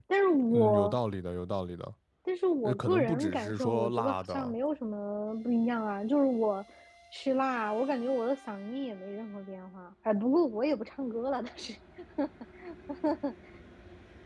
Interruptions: present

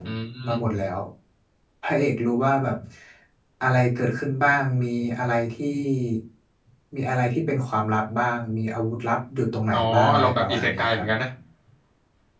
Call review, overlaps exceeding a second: present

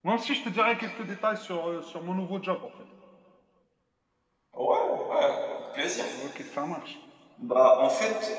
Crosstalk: none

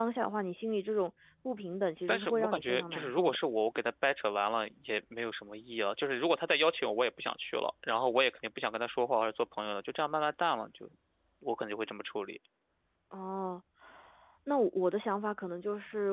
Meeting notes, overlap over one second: present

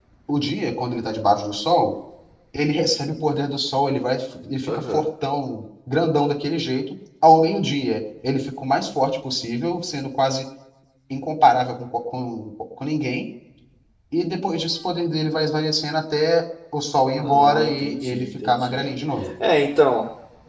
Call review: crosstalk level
present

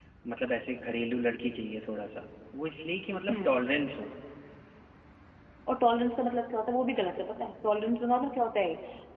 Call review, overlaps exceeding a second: none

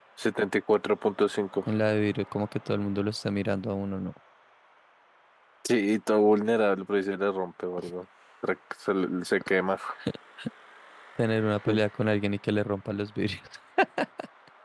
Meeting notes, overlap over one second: none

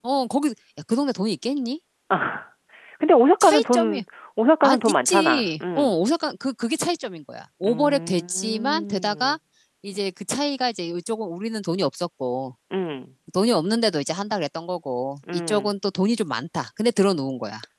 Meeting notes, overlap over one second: present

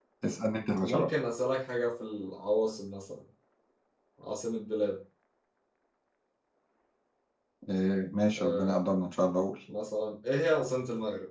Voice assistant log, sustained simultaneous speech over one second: none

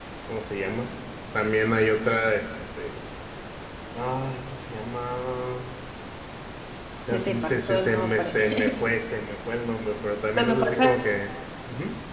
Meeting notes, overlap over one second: present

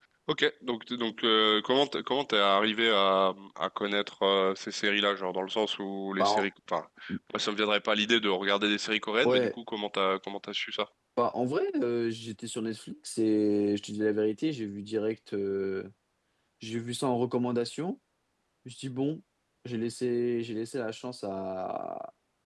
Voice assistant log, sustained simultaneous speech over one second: none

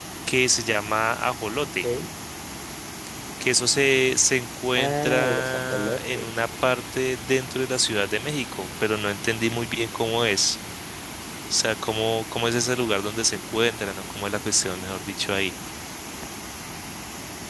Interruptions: present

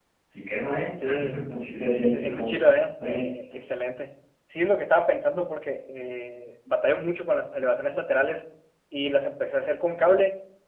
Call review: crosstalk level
present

